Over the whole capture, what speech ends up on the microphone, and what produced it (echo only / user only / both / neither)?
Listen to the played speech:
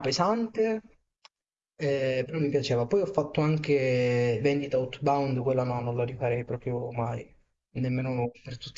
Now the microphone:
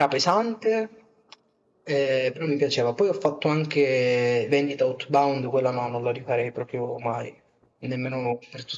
echo only